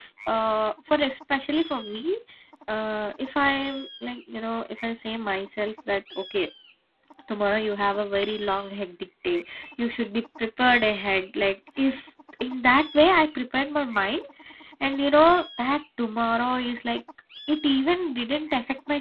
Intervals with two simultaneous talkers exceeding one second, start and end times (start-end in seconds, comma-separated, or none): none